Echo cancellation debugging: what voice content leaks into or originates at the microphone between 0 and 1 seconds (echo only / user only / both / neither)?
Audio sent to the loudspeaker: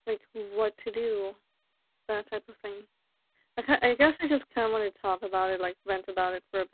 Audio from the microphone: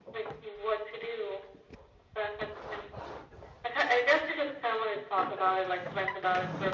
echo only